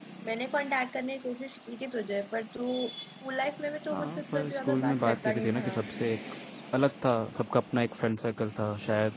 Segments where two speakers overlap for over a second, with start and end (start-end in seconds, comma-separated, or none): 3.9-5.8